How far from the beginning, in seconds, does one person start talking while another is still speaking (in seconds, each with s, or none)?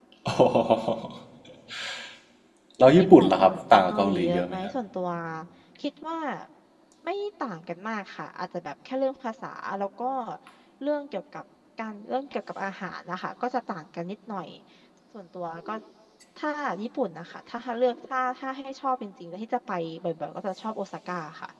3.0 s